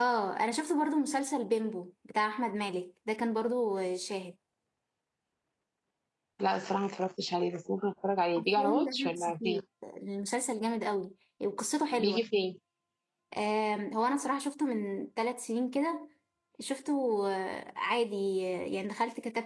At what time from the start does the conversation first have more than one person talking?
8.4 s

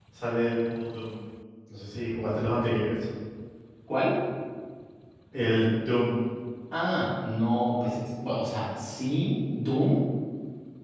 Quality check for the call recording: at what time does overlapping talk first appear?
none

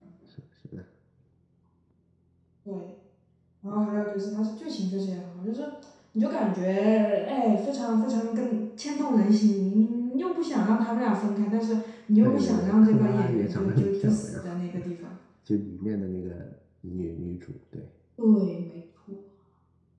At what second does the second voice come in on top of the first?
12.2 s

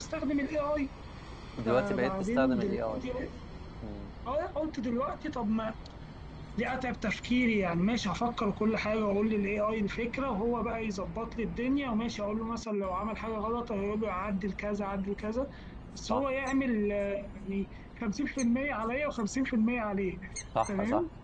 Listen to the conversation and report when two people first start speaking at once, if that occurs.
1.6 s

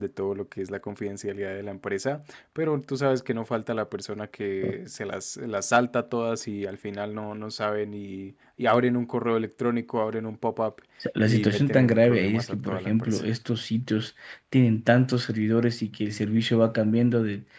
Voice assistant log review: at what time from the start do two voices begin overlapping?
11.2 s

